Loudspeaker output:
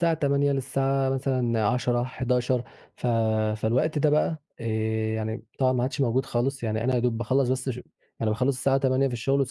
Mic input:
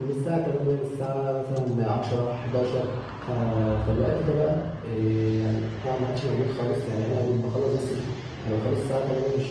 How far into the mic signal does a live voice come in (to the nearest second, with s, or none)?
none